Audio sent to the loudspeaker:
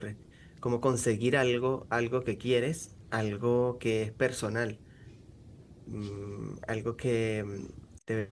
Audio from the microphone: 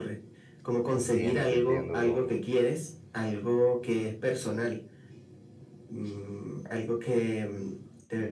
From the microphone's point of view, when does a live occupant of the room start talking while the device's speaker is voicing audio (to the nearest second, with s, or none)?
1 s